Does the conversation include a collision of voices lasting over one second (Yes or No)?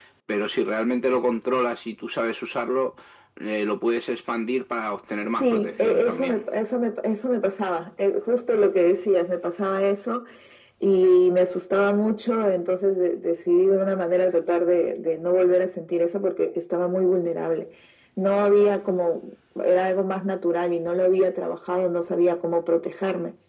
Yes